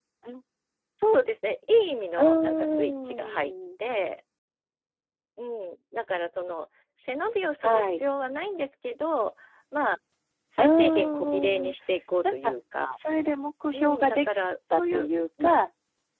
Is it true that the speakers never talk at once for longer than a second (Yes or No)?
No